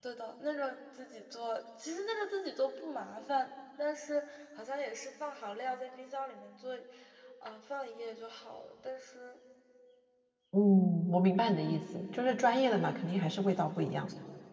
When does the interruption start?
none

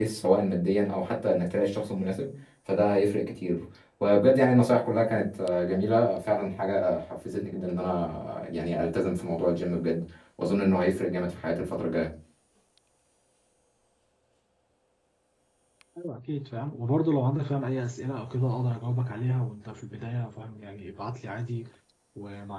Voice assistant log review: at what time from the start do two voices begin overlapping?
none

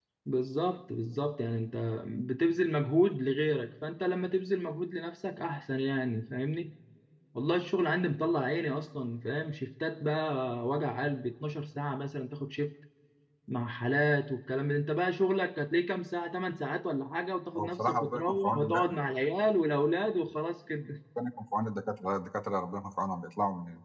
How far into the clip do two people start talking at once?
17.6 s

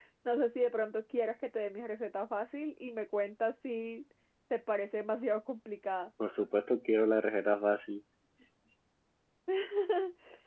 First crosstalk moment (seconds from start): none

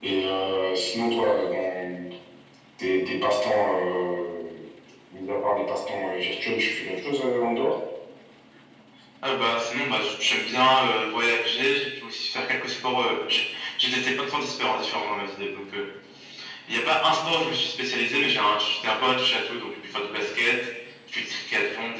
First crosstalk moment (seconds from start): none

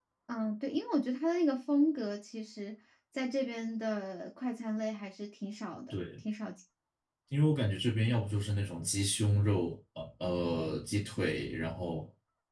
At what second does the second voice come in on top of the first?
none

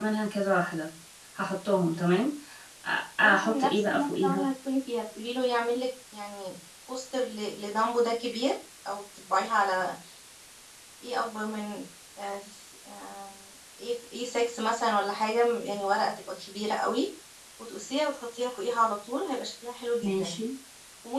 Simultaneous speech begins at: 3.2 s

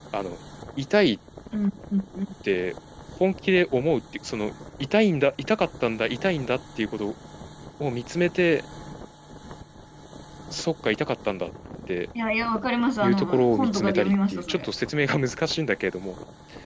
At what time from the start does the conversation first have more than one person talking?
13.0 s

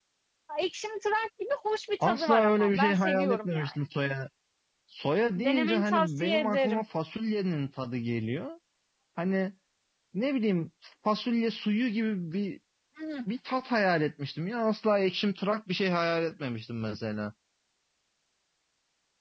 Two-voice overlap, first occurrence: 2.0 s

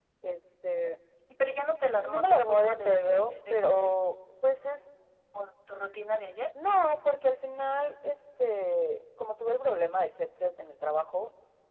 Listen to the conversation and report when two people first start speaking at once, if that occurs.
2.0 s

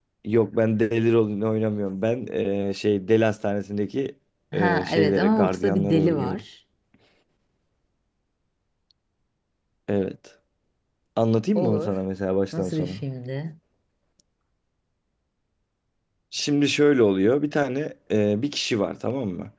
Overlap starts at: 4.5 s

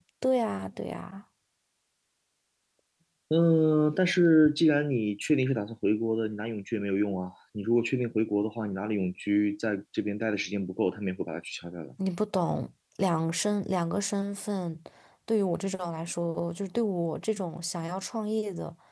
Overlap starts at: none

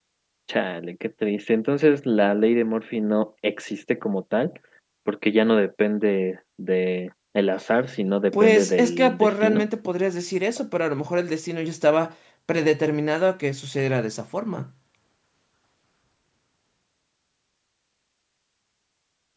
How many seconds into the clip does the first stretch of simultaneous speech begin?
8.3 s

